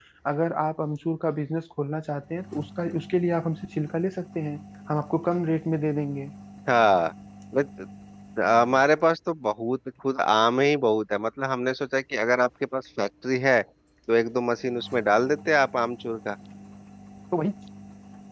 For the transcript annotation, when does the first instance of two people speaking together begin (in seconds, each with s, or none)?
none